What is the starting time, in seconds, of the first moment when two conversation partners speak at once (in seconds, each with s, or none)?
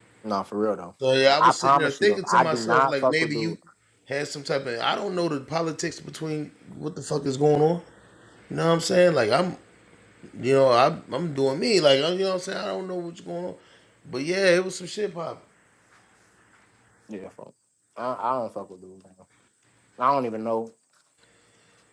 1.4 s